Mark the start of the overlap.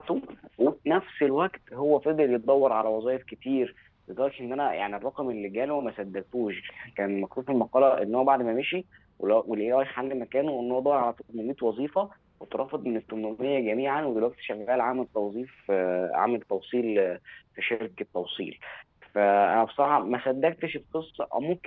none

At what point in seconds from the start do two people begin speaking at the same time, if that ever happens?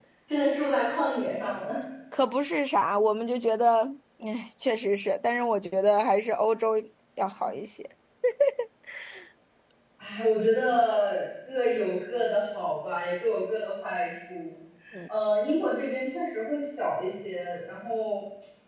none

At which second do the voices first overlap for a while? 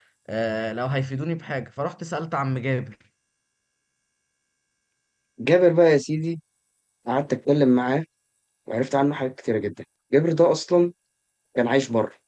none

